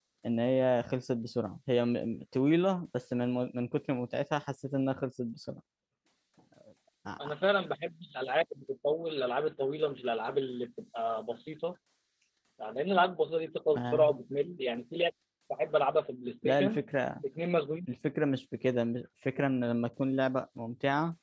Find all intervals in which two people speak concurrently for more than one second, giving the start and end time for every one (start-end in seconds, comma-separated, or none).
none